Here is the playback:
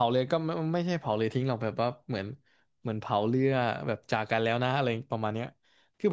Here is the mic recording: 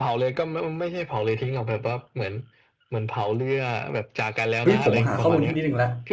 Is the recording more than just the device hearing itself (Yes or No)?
Yes